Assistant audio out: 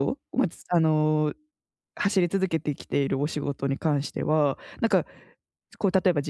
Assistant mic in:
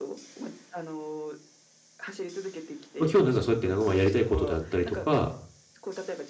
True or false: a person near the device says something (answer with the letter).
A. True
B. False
A